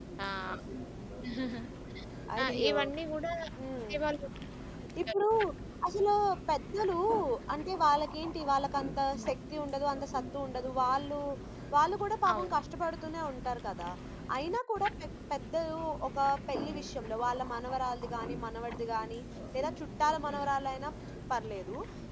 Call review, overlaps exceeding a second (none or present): none